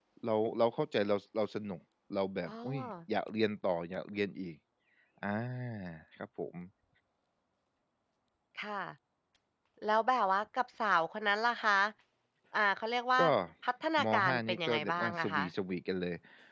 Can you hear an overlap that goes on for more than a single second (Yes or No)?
Yes